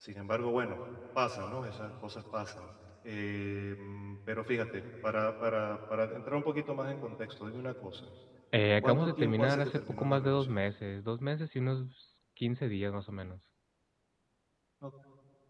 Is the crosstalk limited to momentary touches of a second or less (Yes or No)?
No